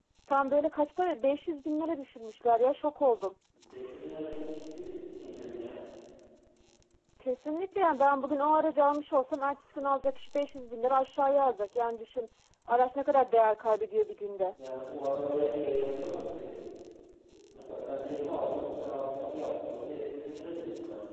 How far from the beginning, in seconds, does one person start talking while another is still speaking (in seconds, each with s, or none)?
none